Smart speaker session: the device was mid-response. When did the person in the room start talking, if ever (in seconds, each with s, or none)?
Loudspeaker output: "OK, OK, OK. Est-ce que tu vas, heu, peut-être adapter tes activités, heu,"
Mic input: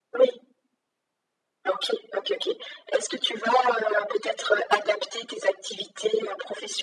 none